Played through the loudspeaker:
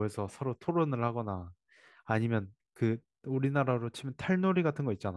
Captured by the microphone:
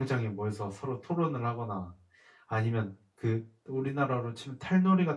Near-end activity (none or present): none